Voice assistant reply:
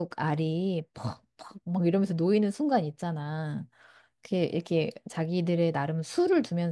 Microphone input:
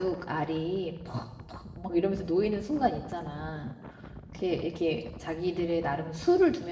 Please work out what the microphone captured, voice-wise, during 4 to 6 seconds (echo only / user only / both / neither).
echo only